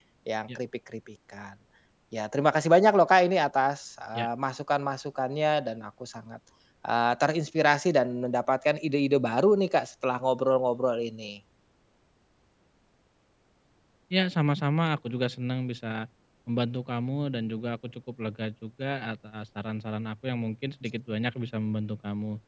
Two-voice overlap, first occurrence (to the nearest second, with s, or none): none